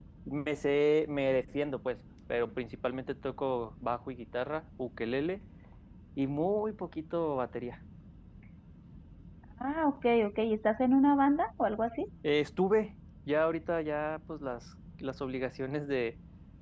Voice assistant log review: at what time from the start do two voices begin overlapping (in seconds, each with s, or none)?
none